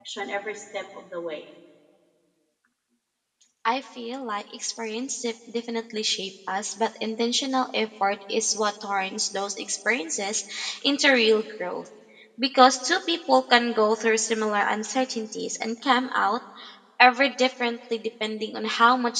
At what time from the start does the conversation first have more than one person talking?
none

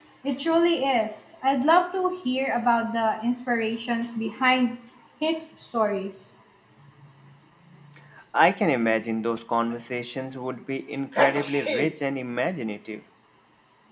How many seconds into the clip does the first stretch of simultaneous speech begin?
none

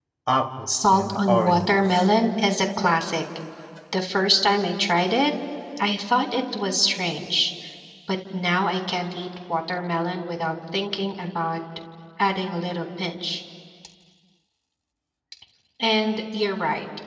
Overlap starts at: 0.7 s

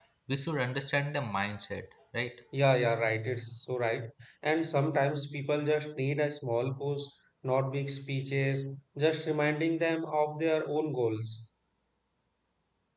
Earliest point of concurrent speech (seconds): none

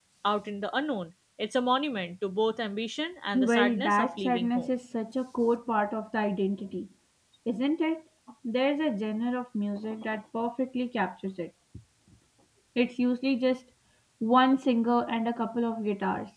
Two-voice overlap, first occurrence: 3.3 s

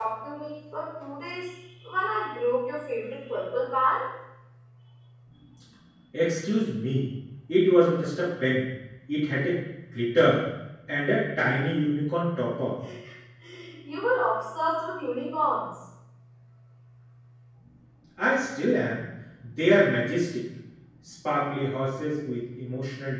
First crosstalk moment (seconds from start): none

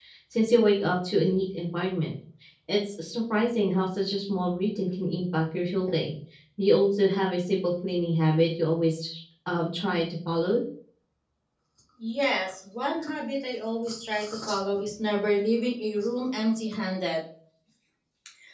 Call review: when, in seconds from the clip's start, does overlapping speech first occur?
none

